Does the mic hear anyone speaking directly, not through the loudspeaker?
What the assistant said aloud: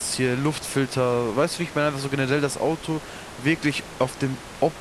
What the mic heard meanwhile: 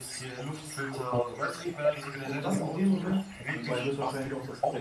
Yes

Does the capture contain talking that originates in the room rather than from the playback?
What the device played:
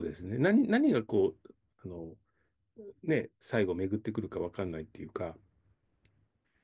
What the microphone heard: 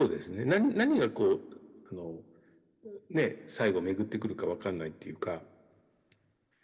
No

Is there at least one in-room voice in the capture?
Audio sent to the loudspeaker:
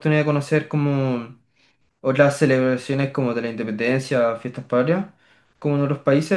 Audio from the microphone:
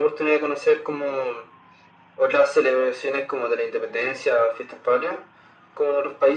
No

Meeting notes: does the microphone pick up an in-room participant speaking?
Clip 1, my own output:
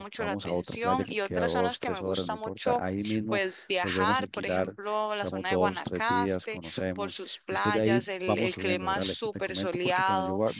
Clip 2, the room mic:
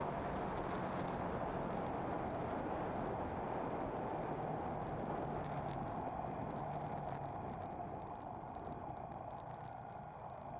No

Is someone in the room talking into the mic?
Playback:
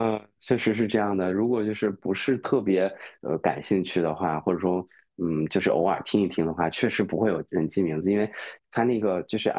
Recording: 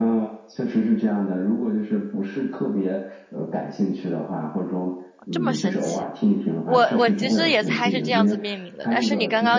Yes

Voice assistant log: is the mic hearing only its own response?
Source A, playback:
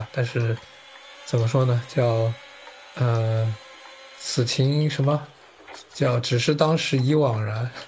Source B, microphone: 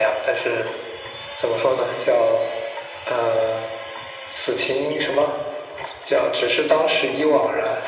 Yes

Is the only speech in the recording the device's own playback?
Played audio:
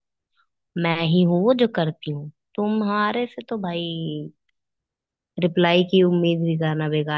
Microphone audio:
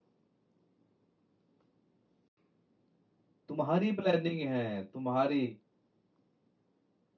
No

